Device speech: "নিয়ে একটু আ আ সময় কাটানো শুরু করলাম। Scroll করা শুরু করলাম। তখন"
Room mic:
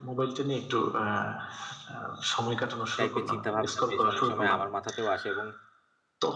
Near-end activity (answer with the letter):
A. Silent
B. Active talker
B